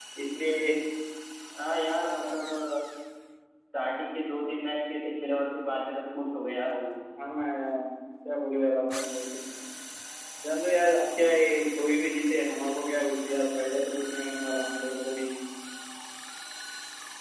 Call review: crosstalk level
none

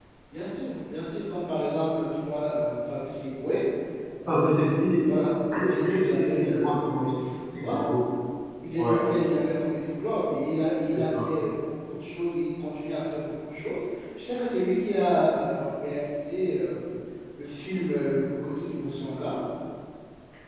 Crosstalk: present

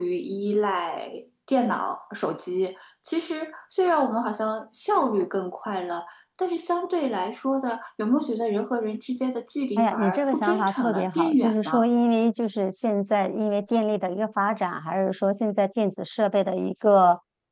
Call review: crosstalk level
present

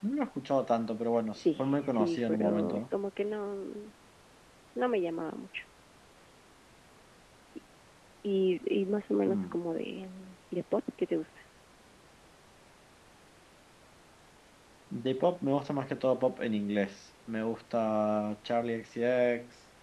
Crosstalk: present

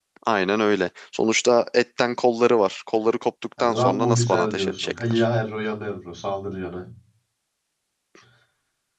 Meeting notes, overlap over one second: present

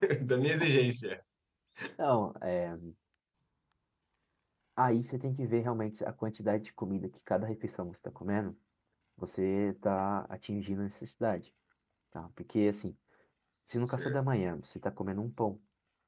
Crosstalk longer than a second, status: none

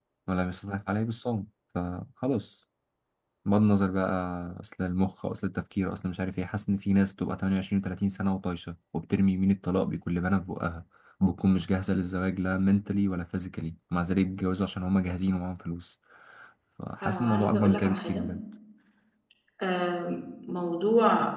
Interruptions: present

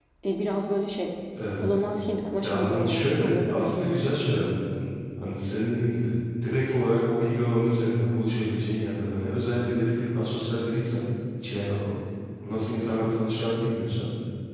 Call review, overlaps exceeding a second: present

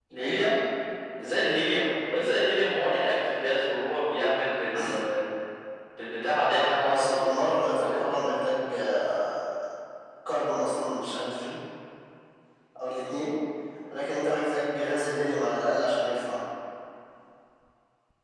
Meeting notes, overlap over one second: none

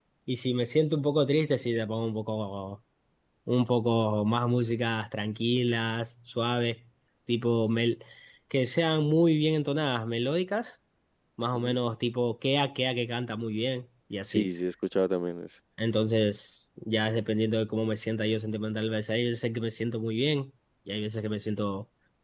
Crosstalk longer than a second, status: none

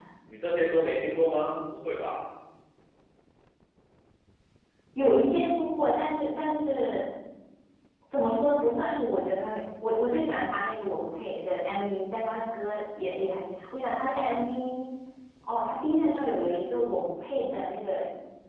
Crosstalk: none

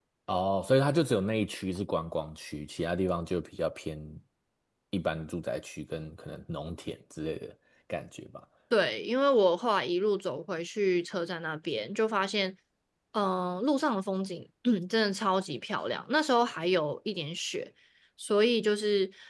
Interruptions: none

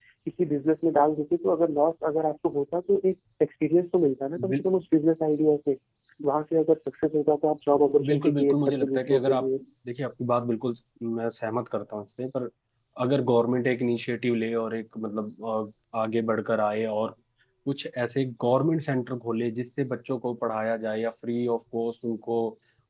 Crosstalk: present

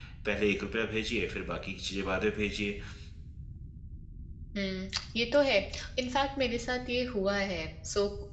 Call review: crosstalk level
none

